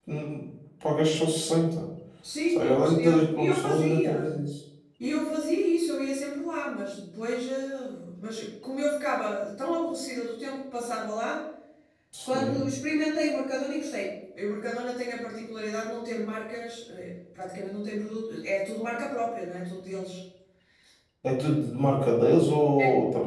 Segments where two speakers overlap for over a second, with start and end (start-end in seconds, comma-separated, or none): 2.5-4.3